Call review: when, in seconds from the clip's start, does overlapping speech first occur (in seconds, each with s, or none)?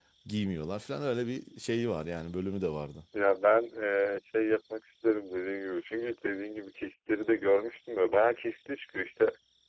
none